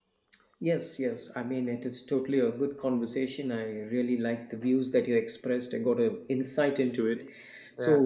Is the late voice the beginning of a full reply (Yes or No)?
No